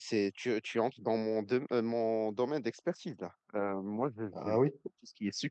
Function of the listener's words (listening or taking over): listening